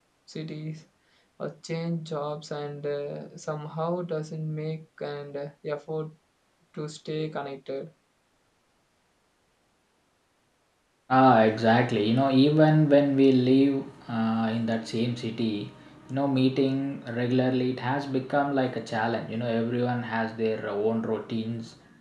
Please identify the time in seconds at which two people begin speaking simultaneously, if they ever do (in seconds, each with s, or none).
none